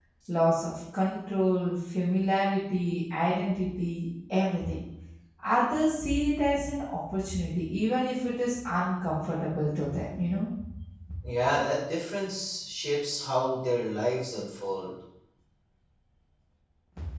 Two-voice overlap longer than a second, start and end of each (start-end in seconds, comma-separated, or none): none